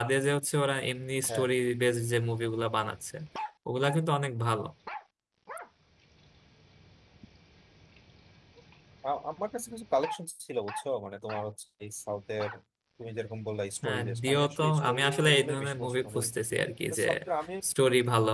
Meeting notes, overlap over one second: present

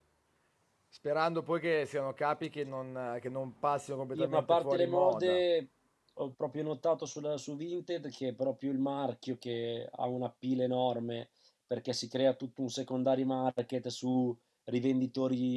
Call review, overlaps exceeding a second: present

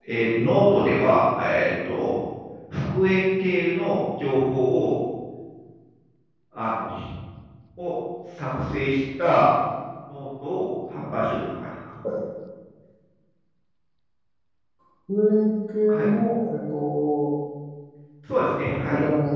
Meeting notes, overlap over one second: none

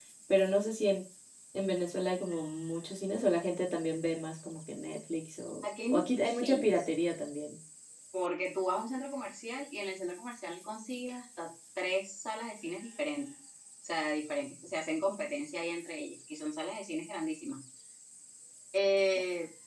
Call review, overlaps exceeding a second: present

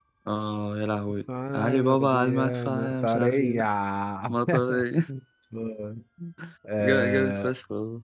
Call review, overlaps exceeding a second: present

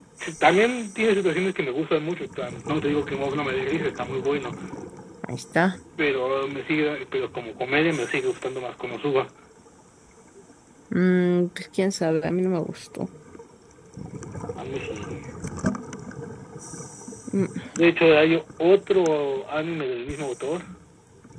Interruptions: none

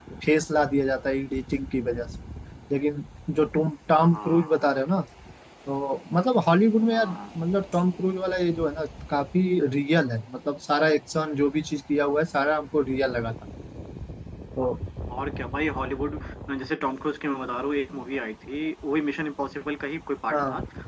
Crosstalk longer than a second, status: none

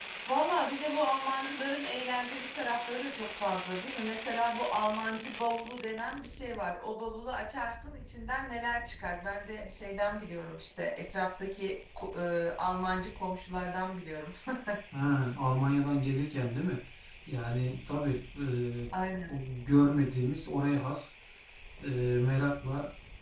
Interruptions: none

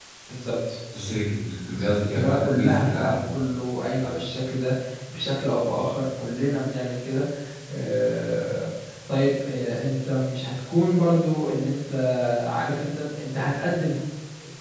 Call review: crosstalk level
present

